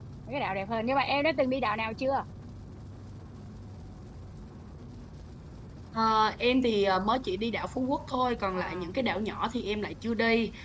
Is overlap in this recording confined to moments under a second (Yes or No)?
Yes